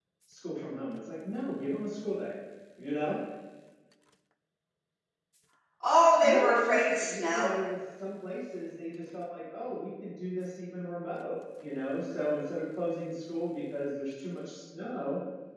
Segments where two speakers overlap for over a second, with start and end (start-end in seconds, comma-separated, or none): 6.2-7.5